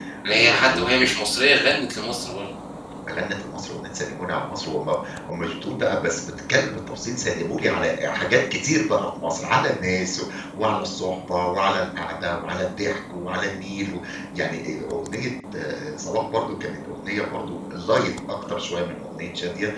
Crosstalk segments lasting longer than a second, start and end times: none

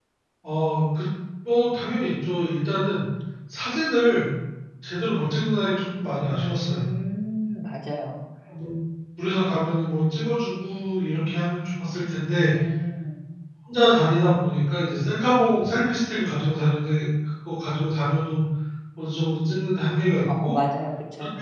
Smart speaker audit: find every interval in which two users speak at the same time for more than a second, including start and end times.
none

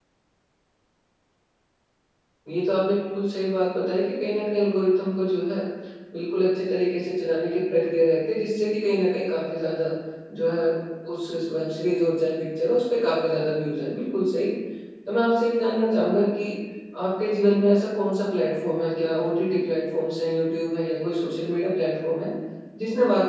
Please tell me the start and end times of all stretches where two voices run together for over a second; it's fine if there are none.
none

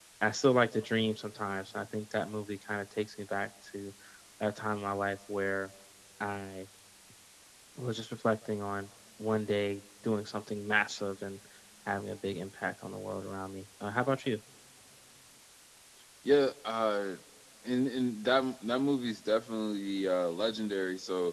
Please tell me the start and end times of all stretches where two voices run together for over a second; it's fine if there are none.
none

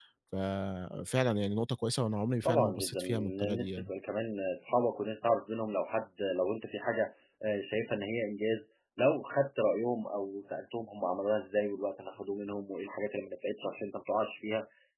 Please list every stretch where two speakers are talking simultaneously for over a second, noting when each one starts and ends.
2.4-3.9

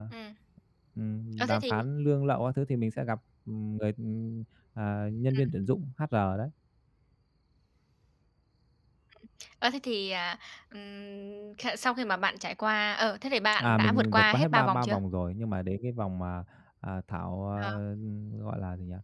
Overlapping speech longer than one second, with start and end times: 13.6-15.0

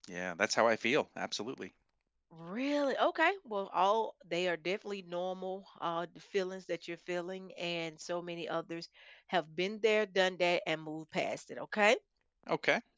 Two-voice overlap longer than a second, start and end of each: none

